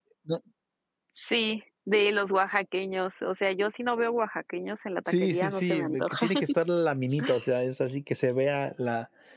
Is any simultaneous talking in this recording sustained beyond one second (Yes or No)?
Yes